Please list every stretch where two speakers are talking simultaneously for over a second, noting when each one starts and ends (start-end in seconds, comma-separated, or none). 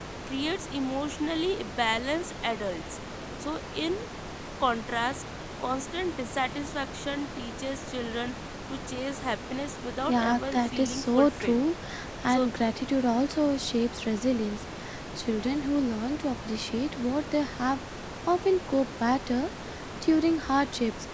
10.0-11.6